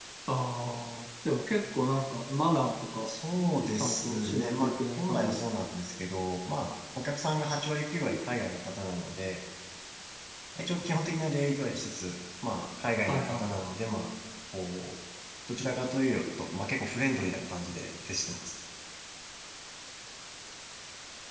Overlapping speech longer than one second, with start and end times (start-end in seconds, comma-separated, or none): 3.8-5.6